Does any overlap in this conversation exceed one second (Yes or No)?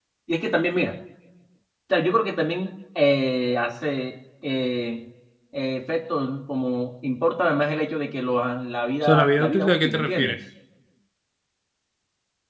Yes